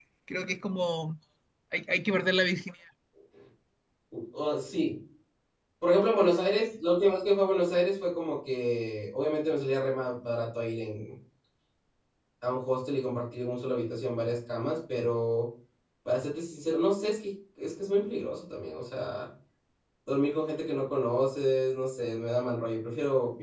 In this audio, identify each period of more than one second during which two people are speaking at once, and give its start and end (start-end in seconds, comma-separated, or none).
none